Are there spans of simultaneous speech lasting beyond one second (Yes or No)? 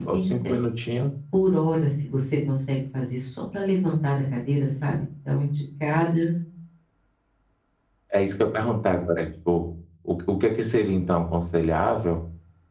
No